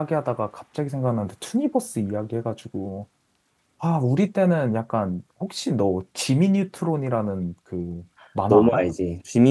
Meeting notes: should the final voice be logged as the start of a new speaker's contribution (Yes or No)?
Yes